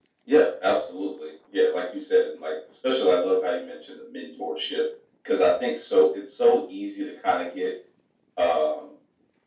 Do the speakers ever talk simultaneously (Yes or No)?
No